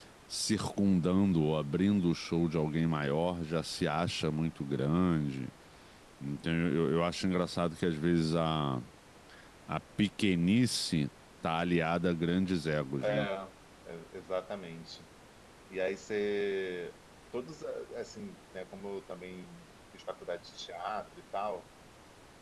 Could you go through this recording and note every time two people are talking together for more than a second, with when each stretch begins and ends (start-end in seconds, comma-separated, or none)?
none